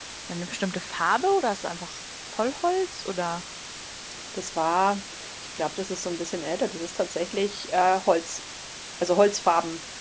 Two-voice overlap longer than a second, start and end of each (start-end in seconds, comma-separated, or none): none